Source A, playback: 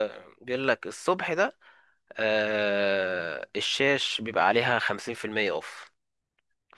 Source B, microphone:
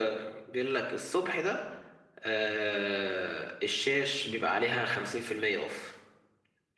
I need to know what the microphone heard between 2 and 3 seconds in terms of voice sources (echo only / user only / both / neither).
echo only